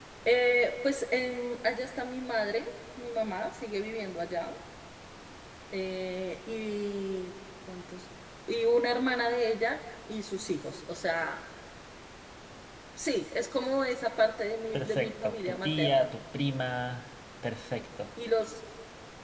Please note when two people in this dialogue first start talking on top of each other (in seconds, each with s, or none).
14.7 s